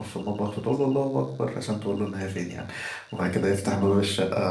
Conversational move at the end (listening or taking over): listening